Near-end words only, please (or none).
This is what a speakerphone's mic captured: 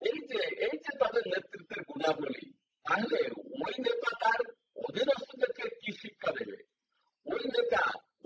none